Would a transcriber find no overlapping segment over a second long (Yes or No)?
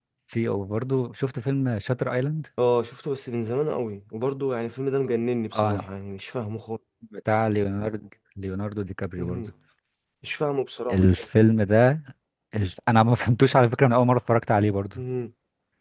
Yes